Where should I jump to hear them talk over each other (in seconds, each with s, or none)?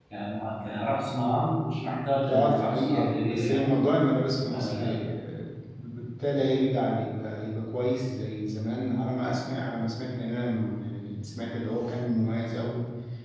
2.3 s